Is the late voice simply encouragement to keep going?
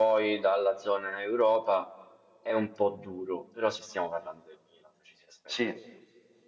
Yes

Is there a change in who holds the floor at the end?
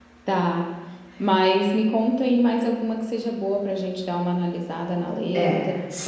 Yes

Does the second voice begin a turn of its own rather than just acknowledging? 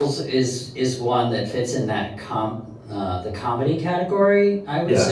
No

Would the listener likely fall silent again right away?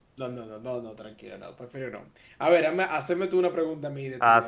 No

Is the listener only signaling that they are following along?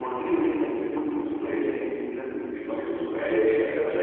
No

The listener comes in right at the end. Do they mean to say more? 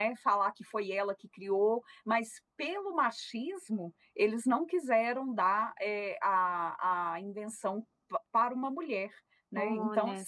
Yes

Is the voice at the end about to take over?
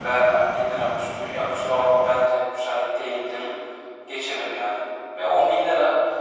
No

